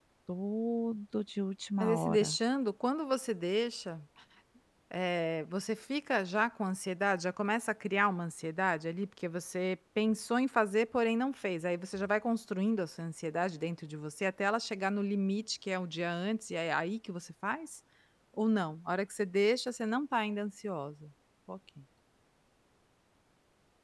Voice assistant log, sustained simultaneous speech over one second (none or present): none